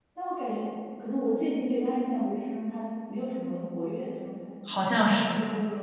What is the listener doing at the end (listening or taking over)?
taking over